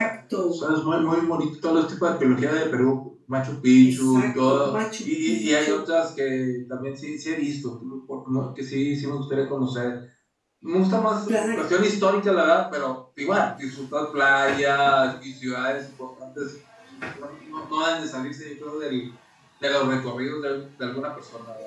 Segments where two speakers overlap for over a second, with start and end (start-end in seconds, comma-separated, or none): 3.8-5.8